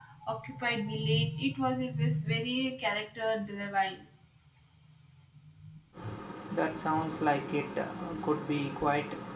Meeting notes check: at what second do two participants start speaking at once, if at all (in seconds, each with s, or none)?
none